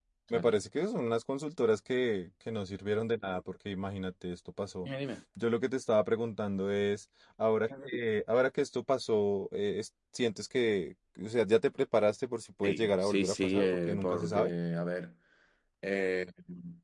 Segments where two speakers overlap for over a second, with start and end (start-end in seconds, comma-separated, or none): 12.6-14.5